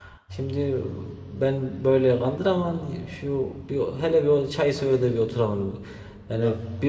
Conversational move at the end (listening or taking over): listening